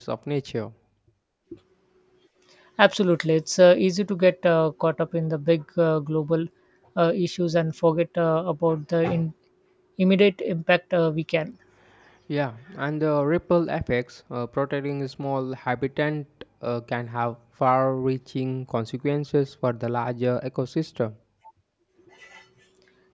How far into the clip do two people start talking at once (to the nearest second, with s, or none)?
none